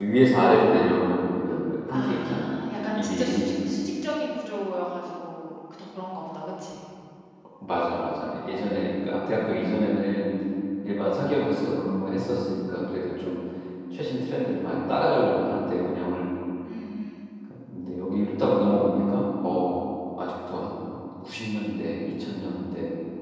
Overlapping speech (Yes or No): Yes